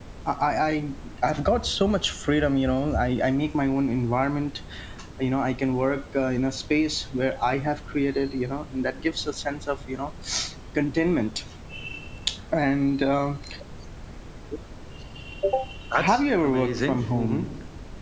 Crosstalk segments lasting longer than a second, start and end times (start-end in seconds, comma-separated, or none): 15.9-17.5